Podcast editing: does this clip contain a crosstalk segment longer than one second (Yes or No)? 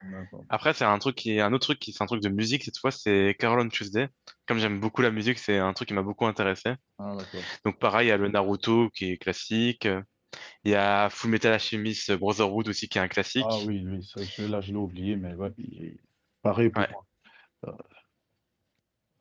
No